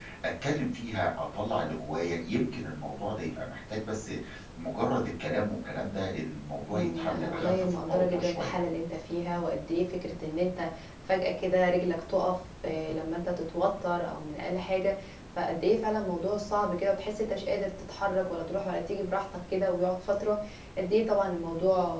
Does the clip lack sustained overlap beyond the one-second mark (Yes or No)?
No